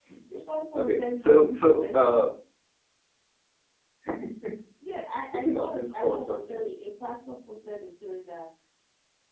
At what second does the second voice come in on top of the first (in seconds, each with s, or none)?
0.8 s